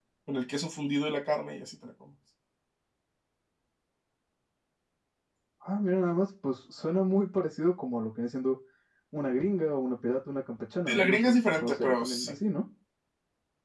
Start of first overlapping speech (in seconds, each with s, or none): 10.9 s